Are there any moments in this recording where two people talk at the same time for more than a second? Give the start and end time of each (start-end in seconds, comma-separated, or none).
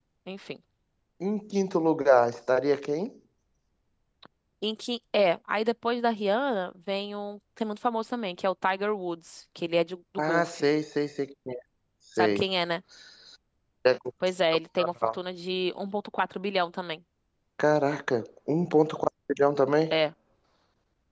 none